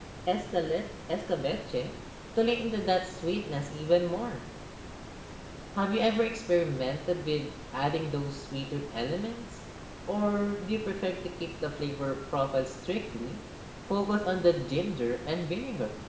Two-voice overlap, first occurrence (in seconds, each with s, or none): none